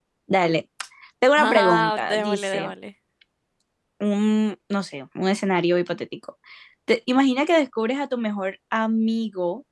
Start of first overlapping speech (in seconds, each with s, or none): 1.4 s